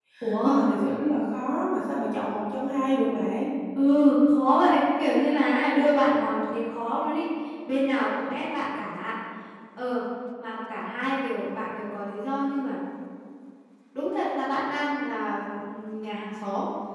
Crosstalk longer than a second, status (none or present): none